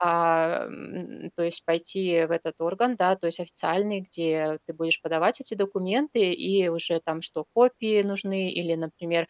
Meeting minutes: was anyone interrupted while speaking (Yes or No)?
No